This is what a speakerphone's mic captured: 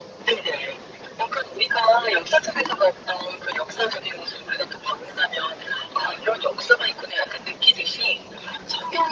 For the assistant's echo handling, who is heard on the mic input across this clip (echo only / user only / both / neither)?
echo only